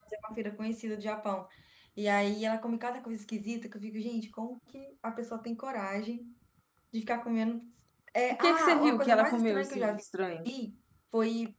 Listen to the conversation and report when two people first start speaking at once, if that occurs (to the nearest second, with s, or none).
8 s